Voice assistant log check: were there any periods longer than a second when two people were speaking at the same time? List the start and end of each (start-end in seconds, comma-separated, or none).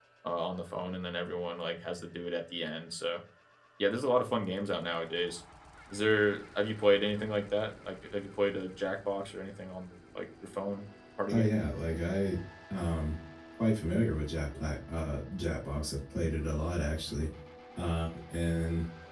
none